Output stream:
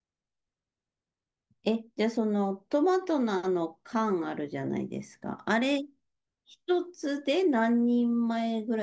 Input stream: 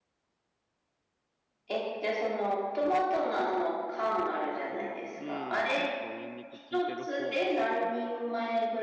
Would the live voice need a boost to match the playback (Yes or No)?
Yes